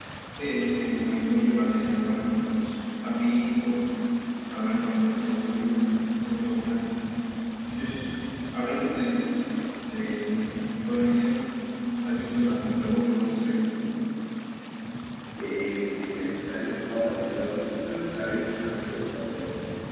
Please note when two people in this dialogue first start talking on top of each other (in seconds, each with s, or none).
none